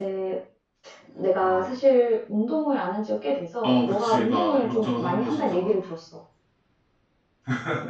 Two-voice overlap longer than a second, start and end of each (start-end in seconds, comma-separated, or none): 3.6-5.7